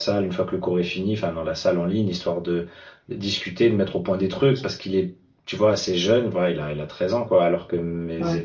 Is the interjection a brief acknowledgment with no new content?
Yes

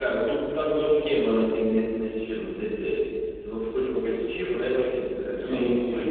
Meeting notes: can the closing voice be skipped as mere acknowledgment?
No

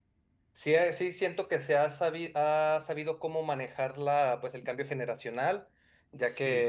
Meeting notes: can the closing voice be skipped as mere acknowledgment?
Yes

